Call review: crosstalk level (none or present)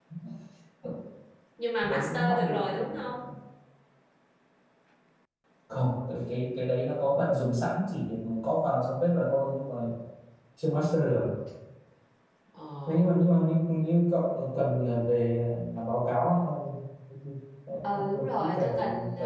present